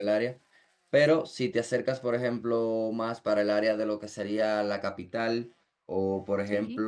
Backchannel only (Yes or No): Yes